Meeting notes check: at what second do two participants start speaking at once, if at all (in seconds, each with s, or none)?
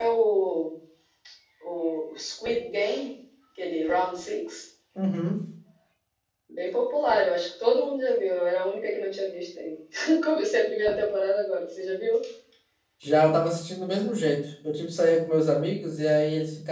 none